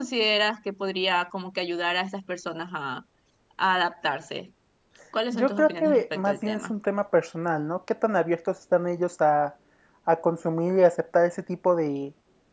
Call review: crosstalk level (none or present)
present